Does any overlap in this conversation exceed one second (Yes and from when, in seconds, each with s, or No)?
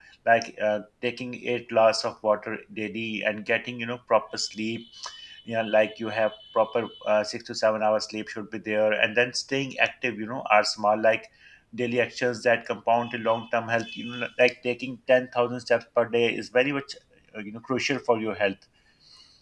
No